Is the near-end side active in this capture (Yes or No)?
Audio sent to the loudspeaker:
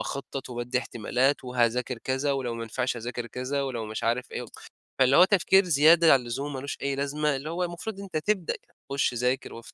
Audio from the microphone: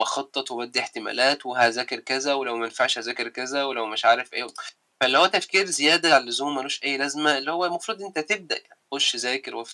No